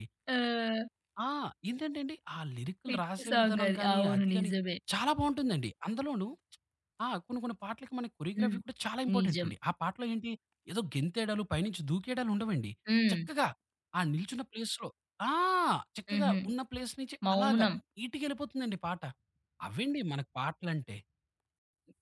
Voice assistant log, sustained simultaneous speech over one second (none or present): present